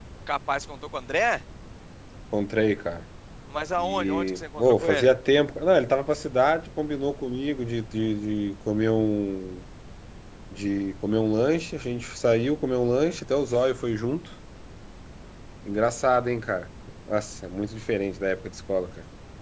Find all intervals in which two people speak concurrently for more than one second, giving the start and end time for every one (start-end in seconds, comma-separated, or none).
3.8-5.1